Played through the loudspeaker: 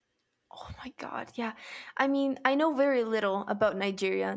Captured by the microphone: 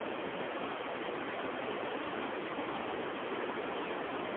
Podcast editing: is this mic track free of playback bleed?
Yes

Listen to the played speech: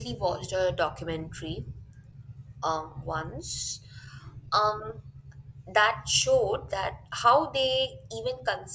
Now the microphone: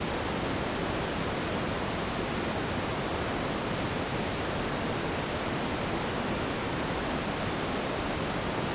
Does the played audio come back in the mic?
No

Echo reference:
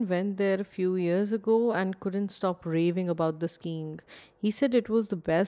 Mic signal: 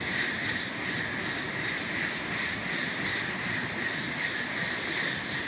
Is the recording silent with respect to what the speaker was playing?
Yes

